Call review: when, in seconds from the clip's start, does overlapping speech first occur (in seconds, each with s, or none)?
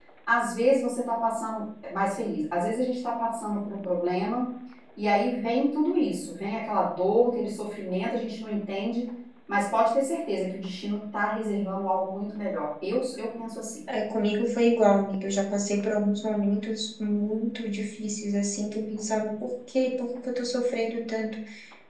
none